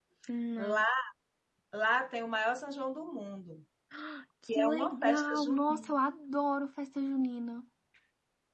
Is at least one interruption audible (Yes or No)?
Yes